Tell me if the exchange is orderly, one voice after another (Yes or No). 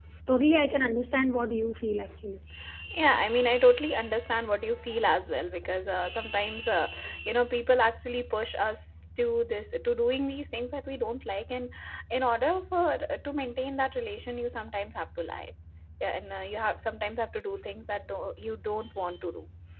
Yes